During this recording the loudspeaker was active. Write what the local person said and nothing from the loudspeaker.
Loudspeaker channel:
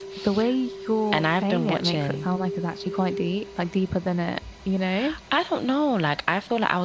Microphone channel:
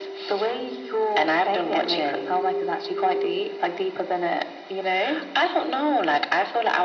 none

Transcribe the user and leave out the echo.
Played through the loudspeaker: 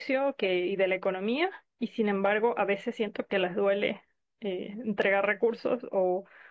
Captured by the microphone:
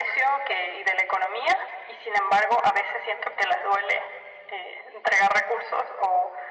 none

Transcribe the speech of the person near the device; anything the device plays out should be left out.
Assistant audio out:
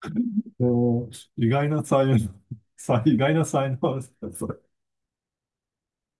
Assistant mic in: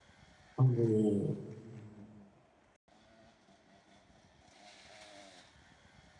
あの、

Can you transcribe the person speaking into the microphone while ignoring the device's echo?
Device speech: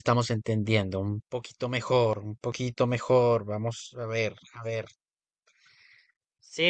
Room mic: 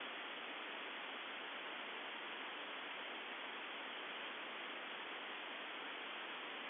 none

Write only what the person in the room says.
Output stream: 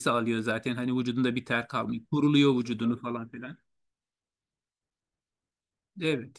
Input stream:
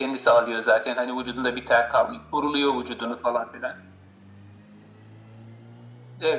none

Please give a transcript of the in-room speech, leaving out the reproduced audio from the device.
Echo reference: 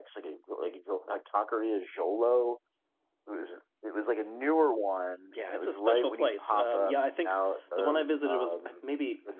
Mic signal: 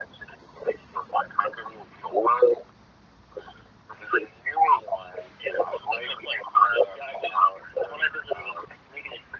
none

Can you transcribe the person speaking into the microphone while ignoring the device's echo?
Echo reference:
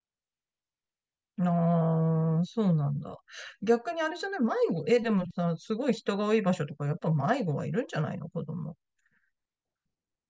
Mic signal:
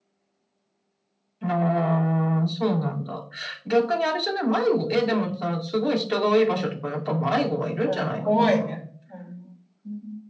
うん、怖いね。うん。うん

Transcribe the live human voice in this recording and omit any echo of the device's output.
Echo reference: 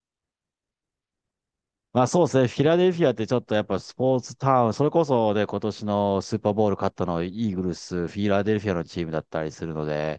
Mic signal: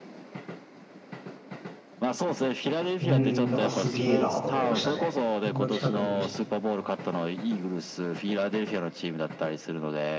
うーん、なんかすげえなと思いましたね。こんな近くに見して。

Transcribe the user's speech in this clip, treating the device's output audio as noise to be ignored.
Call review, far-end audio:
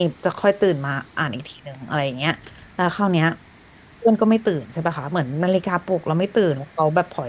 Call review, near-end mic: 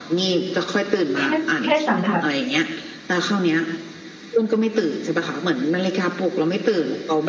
แค่แค่สัมผัส

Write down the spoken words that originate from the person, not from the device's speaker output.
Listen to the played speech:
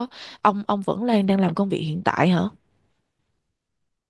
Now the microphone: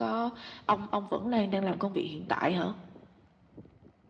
none

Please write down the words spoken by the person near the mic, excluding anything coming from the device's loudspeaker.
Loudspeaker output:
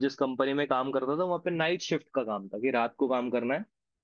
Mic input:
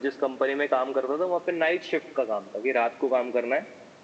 none

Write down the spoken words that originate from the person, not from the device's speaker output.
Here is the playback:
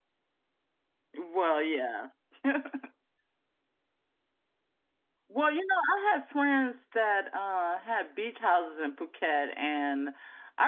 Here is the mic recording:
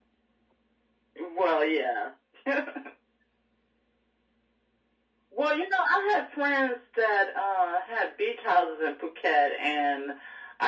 none

